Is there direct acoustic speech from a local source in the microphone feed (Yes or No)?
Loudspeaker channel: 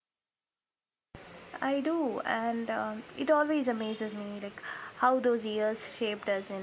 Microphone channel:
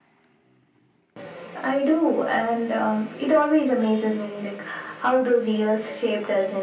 No